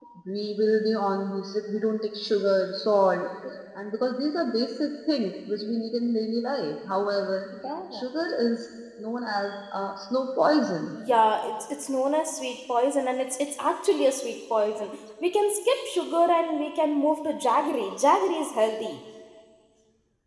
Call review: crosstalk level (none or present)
none